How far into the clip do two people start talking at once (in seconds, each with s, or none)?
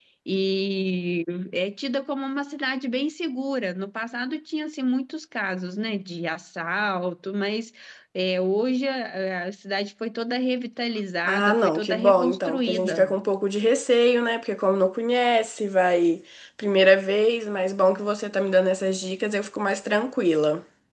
11.3 s